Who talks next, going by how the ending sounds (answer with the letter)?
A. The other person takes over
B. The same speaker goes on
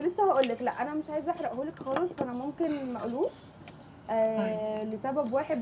B